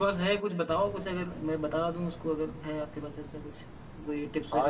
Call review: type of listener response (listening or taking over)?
taking over